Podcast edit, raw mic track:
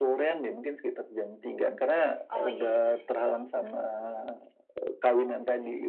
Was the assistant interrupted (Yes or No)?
Yes